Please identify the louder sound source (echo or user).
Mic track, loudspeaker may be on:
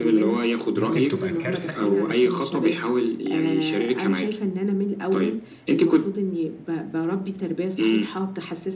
echo